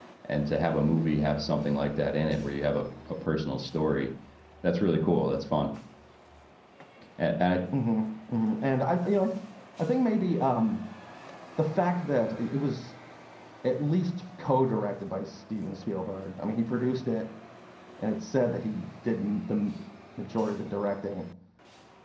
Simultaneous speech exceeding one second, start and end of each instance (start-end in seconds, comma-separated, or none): none